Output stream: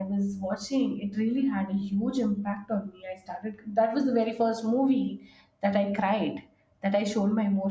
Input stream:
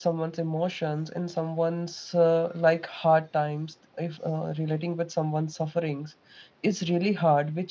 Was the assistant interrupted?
Yes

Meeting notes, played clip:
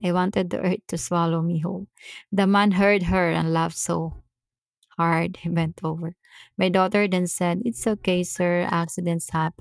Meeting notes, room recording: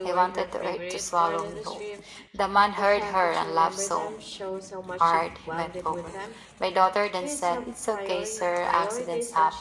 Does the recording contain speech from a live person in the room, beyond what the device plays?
Yes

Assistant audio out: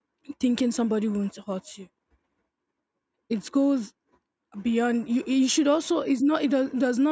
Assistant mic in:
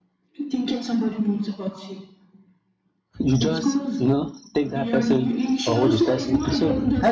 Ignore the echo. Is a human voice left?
Yes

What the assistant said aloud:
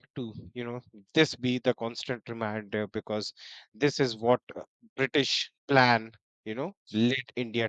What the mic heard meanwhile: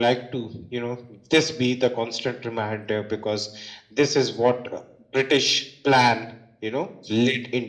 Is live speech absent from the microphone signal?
Yes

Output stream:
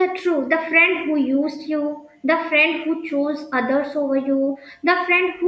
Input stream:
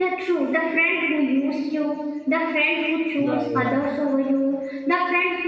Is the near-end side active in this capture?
Yes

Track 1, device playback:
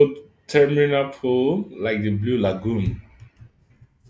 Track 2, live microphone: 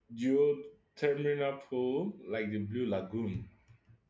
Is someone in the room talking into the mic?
No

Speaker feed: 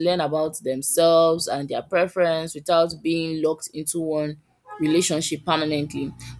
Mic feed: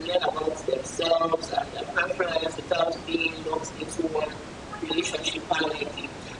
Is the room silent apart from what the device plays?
Yes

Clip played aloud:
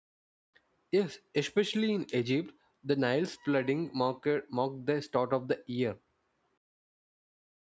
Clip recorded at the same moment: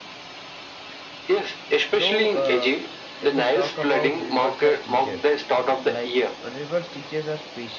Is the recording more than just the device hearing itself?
Yes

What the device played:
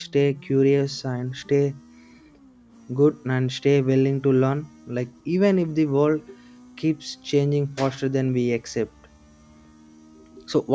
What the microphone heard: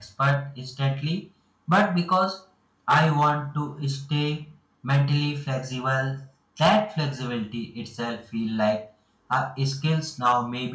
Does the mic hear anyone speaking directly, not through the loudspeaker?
Yes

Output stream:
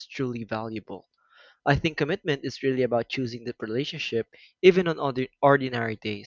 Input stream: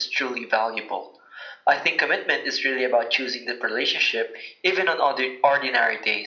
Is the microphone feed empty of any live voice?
Yes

